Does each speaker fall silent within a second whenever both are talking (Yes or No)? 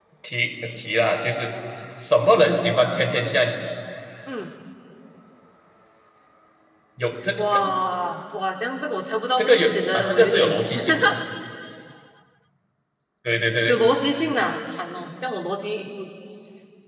No